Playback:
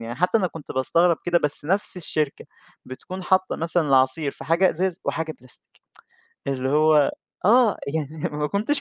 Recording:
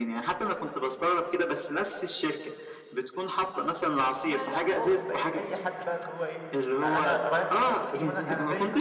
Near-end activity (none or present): present